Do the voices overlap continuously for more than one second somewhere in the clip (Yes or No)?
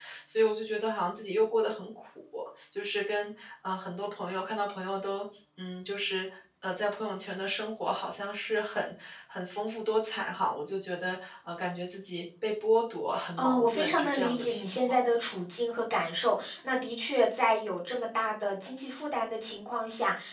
Yes